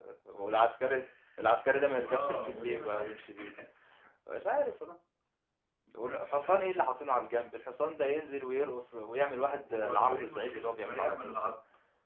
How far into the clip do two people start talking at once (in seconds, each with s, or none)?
1.9 s